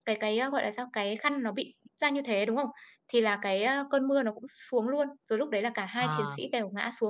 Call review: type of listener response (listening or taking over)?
listening